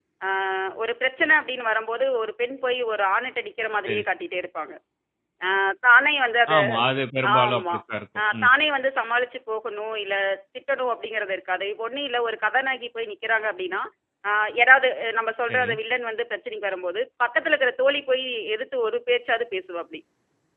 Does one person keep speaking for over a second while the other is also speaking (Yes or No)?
No